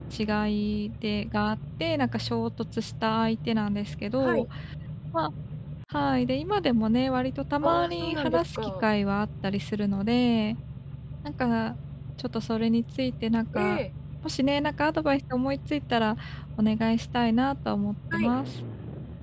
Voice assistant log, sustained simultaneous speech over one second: present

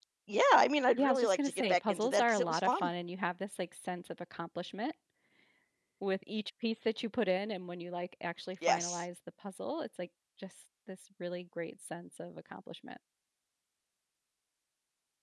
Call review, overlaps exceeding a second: present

